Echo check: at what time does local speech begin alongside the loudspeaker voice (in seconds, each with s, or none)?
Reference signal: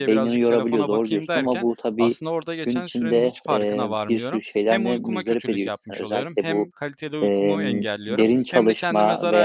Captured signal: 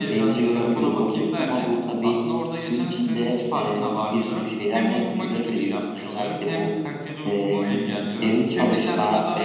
none